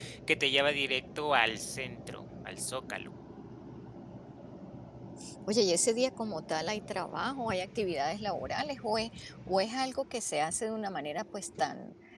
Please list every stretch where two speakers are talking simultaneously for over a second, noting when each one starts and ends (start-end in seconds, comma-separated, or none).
none